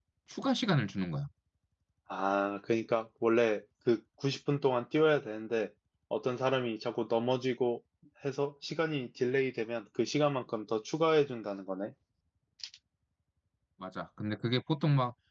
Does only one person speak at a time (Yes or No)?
Yes